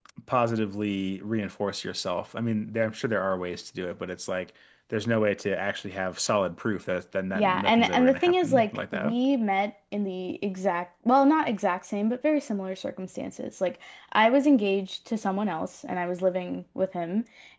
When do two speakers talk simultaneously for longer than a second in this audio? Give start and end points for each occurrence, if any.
7.3-9.2

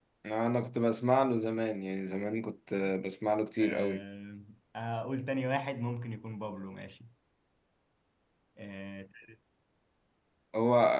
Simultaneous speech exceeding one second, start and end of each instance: none

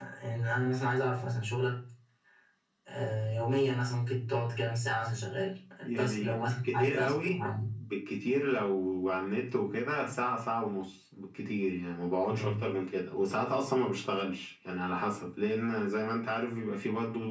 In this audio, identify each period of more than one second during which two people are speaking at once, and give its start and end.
6.0-7.4

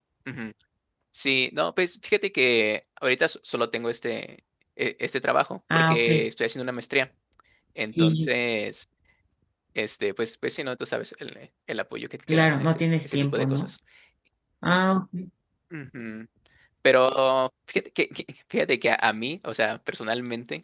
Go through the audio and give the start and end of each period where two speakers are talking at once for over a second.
12.3-13.7

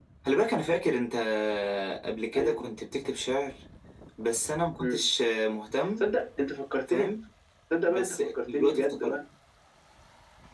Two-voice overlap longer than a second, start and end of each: 7.9-9.2

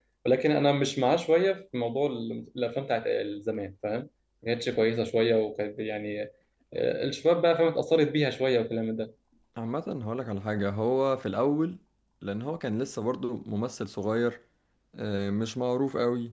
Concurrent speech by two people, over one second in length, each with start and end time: none

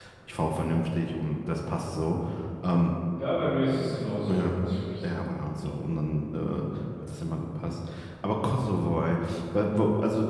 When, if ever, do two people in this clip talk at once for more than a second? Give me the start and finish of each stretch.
none

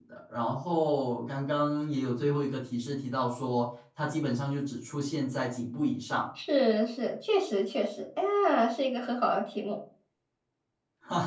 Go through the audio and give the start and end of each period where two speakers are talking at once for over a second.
none

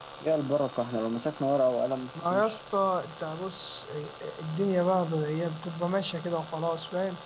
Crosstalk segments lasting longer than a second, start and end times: none

